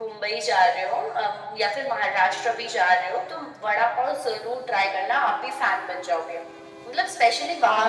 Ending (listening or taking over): taking over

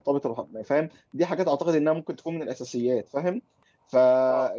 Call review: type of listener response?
listening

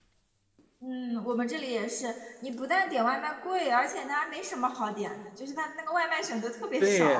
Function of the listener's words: taking over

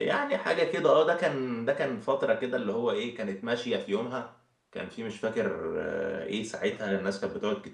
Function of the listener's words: listening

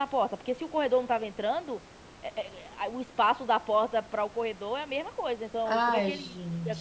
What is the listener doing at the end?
taking over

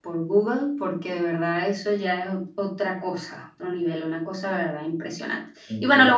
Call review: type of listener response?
listening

